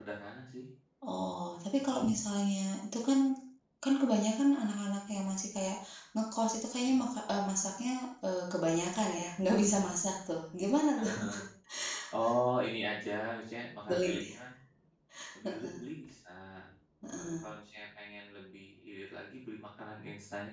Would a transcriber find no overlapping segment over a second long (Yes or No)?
Yes